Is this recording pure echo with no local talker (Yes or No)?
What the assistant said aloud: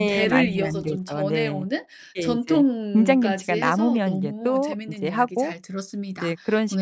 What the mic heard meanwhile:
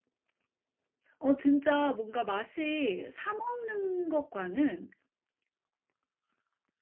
No